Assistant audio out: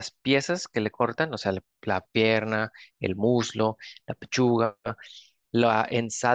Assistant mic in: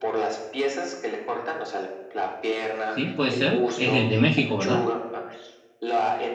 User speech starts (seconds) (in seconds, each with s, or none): 2.9 s